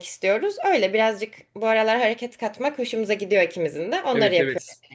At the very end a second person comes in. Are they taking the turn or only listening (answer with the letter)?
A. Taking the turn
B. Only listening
A